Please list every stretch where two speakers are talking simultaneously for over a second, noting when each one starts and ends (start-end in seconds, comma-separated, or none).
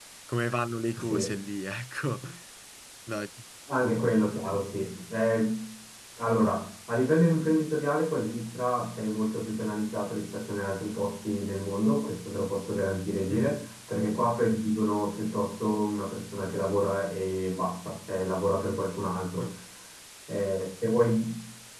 none